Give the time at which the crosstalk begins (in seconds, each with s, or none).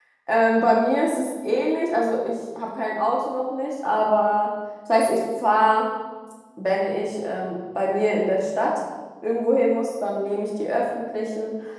none